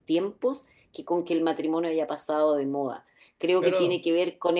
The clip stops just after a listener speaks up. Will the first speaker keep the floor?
Yes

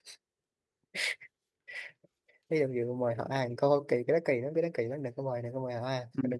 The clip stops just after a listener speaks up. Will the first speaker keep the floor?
No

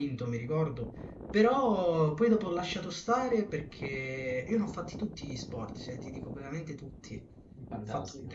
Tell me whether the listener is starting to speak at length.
No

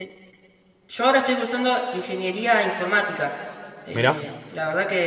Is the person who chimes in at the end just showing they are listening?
Yes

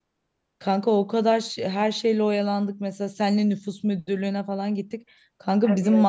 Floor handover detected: No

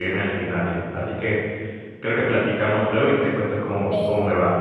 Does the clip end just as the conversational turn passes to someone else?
Yes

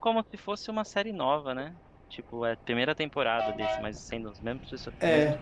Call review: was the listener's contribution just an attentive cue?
No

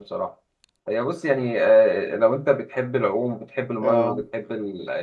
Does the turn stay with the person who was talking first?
Yes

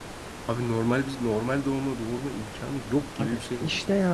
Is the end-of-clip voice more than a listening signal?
Yes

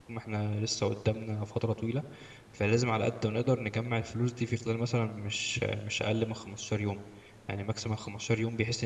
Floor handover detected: No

